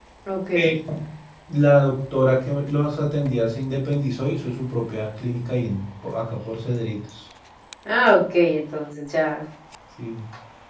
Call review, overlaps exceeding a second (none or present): none